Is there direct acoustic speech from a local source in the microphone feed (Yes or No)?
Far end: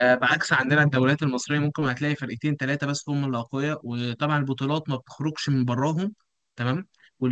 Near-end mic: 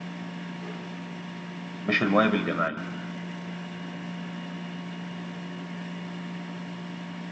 Yes